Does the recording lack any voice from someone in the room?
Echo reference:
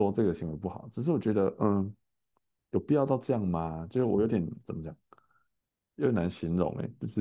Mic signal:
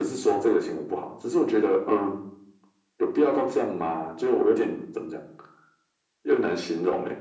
Yes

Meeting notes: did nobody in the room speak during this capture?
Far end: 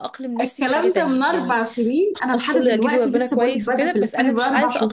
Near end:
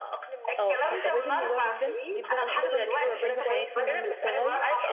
No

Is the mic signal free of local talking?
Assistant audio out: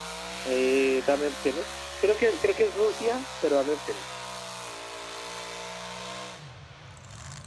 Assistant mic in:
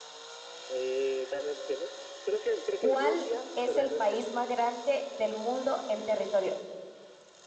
No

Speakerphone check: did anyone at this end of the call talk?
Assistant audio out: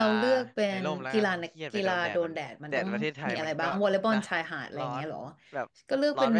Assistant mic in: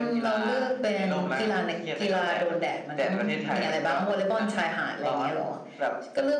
No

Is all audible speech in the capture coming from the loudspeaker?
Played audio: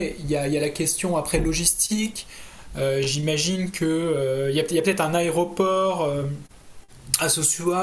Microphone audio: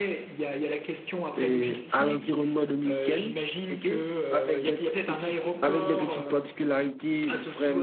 No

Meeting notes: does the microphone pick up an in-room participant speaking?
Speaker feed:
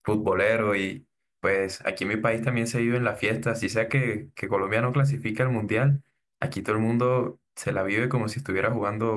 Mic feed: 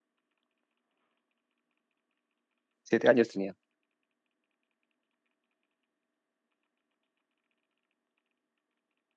Yes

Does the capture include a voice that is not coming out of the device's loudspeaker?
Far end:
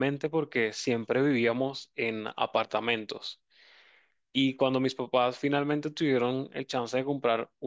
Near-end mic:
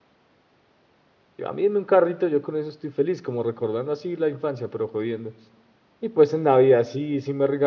Yes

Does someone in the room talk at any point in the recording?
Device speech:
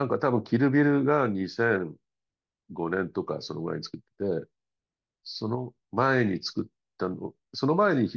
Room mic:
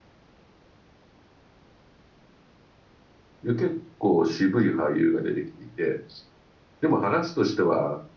Yes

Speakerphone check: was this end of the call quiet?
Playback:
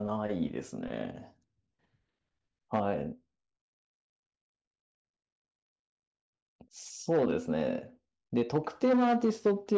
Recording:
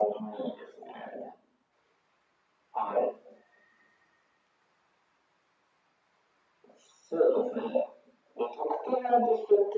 Yes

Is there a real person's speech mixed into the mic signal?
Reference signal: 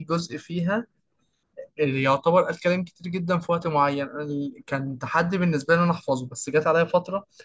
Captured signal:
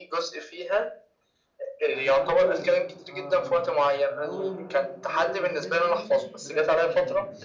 Yes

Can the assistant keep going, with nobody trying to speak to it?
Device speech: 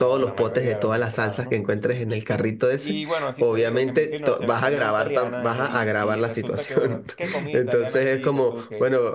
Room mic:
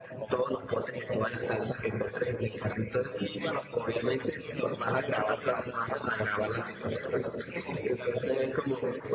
Yes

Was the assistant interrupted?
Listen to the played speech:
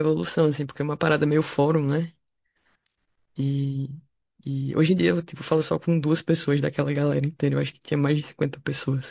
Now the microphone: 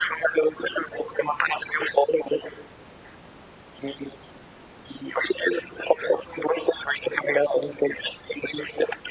No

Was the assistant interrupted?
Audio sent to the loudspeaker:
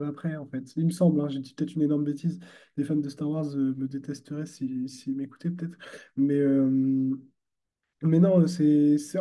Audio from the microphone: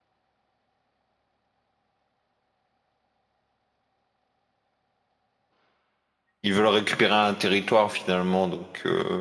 Yes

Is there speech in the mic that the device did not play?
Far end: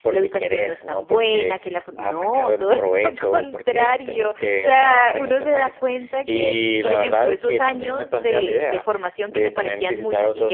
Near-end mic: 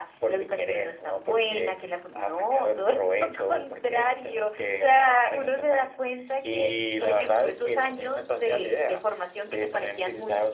No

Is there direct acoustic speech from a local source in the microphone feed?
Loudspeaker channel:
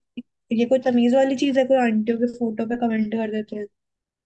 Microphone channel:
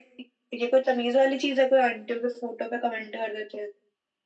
No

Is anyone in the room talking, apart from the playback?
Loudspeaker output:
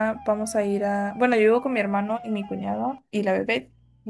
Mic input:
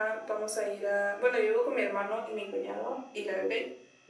No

